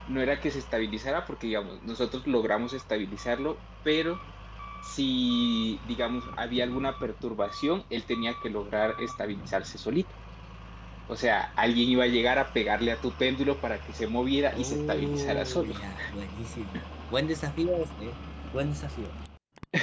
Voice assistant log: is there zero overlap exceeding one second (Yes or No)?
No